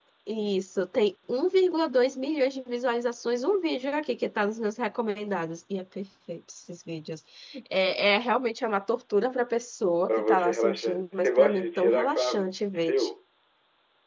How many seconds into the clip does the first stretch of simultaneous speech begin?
10.1 s

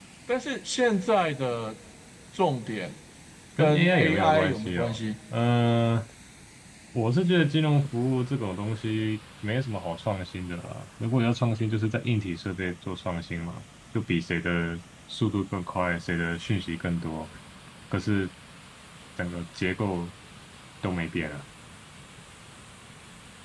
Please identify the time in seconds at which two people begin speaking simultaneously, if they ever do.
3.6 s

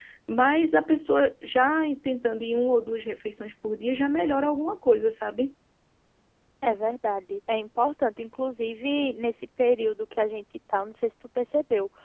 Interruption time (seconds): none

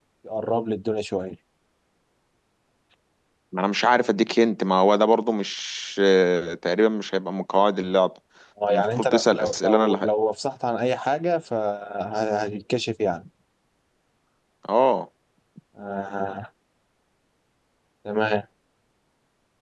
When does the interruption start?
8.7 s

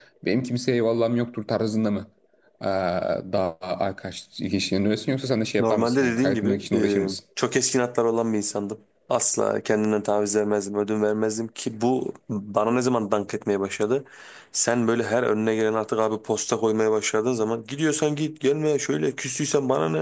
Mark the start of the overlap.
5.6 s

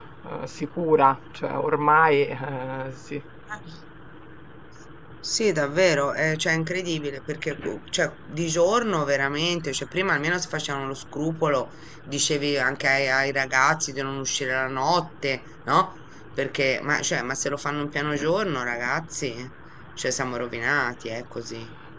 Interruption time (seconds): none

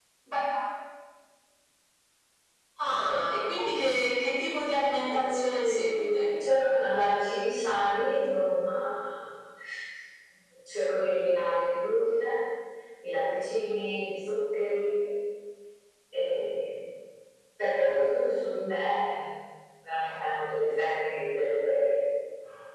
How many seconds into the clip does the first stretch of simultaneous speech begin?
5.1 s

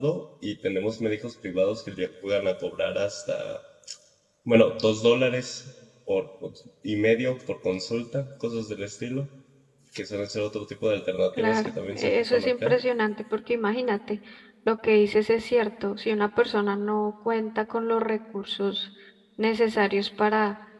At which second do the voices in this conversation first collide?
11.4 s

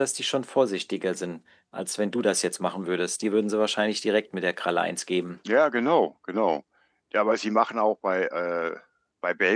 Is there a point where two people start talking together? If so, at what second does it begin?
none

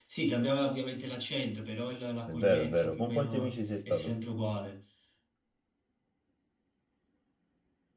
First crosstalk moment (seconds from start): 2.3 s

